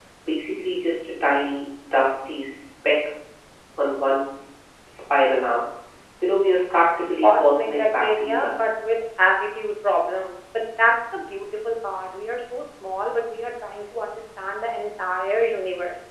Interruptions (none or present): present